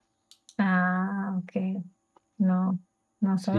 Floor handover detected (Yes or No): Yes